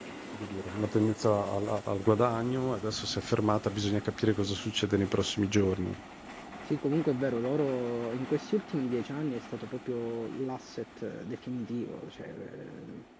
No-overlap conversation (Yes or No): Yes